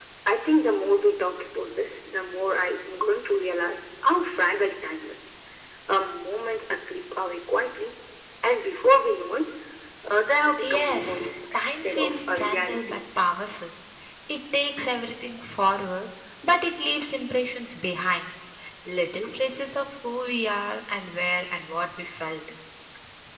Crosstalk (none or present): present